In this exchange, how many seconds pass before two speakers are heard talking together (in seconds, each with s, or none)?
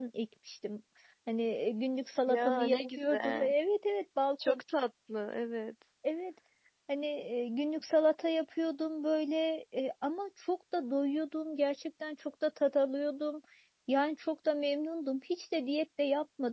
2.3 s